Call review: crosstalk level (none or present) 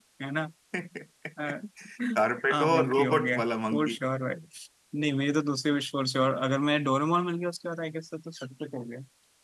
present